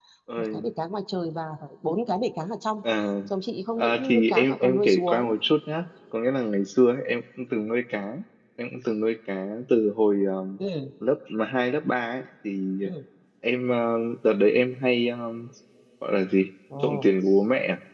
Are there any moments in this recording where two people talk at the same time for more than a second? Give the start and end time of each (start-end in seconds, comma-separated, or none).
3.8-5.3